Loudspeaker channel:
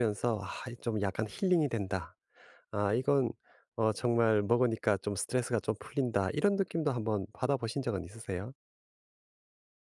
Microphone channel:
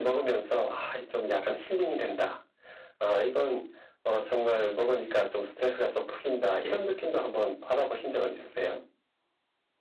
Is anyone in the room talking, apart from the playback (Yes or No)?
No